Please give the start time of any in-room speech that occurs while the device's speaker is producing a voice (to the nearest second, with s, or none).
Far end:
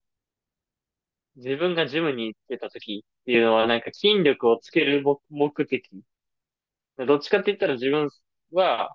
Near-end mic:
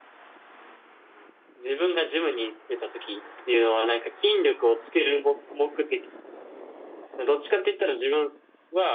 none